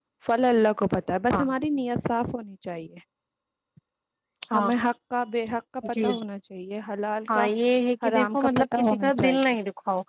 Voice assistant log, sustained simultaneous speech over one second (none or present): present